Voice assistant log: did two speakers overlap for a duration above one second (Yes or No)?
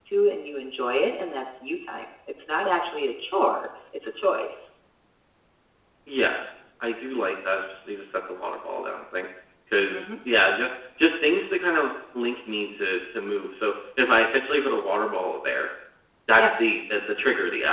No